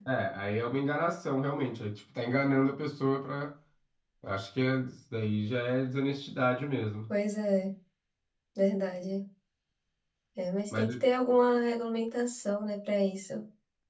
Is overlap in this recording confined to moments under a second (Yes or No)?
Yes